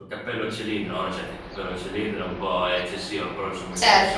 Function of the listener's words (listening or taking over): listening